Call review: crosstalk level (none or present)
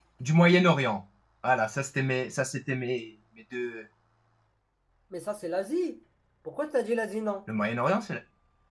none